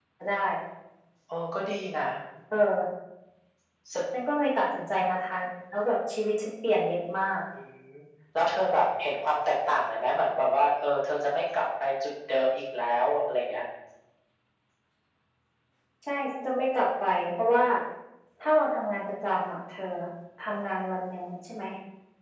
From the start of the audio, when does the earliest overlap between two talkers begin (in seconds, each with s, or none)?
none